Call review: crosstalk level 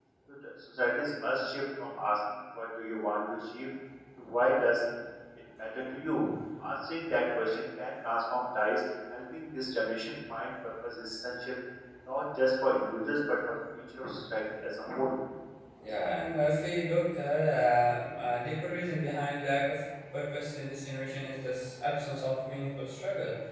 none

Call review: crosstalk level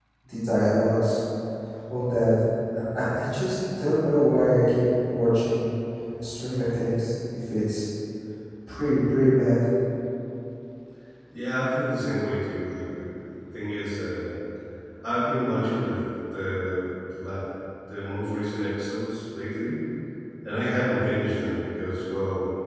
none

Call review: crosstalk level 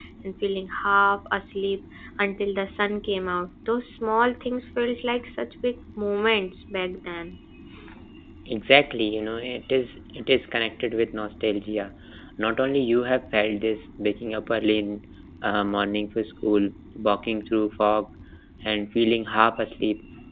none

